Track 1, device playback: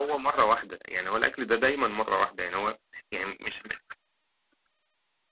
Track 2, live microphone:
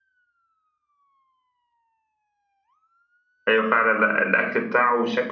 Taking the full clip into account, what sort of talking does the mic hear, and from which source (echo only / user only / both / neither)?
user only